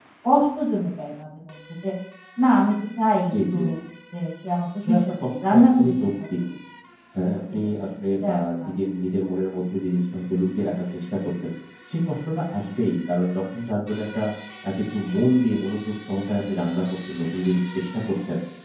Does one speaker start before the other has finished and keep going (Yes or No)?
Yes